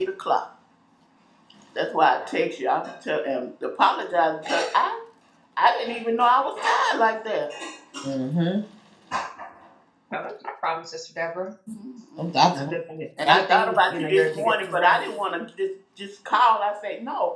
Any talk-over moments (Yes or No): Yes